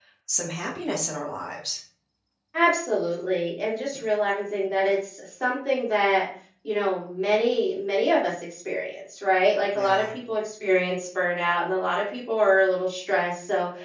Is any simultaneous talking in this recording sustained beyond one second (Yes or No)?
No